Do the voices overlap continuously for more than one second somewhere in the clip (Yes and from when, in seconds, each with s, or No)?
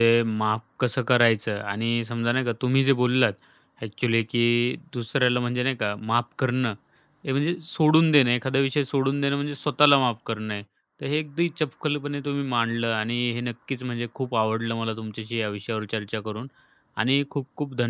No